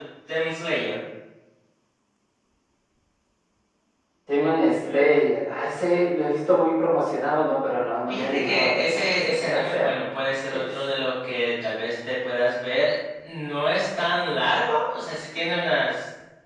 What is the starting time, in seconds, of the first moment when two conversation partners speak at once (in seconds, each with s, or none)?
8.1 s